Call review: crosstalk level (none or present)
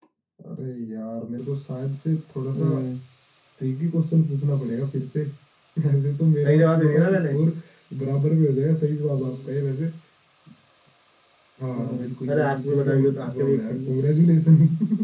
present